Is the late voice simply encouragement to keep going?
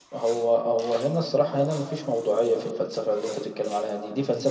Yes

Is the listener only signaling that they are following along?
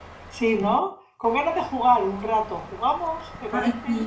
No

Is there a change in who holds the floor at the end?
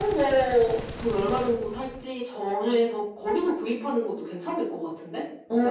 Yes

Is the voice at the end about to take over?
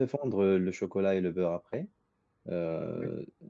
No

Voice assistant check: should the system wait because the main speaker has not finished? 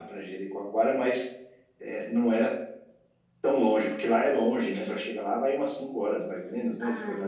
No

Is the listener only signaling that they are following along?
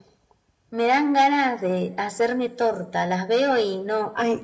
No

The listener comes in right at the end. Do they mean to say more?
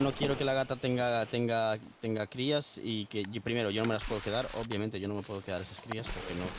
No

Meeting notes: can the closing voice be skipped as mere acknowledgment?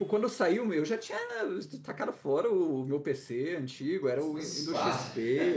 Yes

